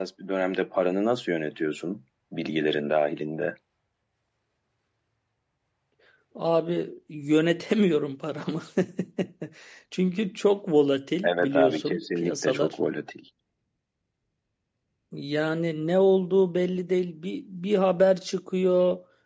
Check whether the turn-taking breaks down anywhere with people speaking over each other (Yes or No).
Yes